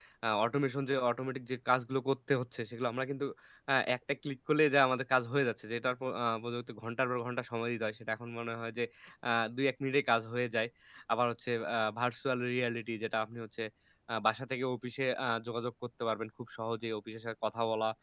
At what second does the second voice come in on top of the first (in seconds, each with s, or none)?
none